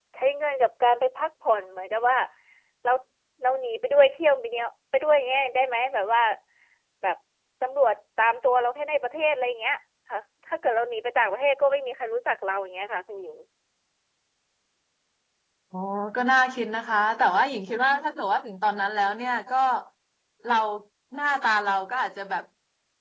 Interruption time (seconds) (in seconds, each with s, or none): none